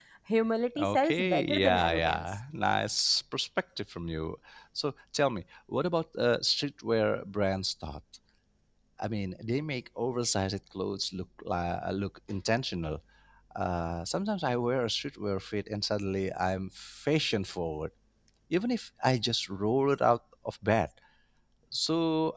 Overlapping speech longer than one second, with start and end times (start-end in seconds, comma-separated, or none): 0.8-2.2